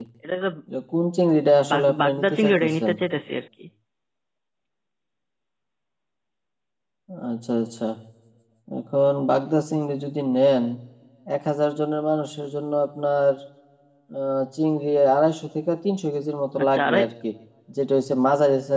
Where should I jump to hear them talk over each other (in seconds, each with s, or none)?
1.7 s